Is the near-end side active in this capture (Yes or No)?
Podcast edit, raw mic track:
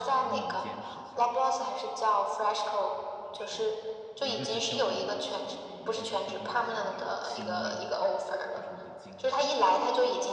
Yes